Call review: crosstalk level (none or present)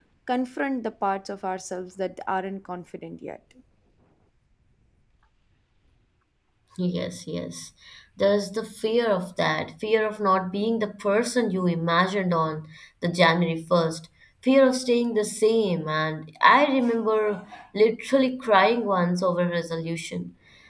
none